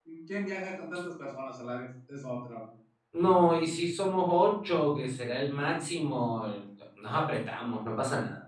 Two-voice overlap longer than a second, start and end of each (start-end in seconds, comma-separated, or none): none